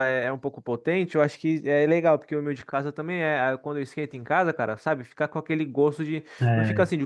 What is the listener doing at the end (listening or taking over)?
listening